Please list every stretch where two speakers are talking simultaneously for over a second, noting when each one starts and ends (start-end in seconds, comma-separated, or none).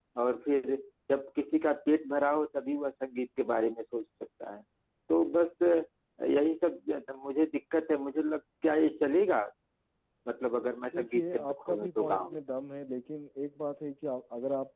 10.9-12.4